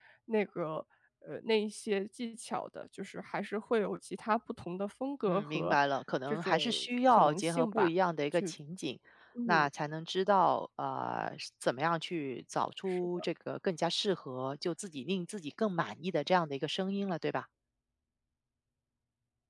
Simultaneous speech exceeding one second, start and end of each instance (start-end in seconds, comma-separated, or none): 6.3-7.9